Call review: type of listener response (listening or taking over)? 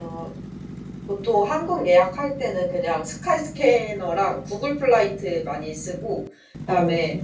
listening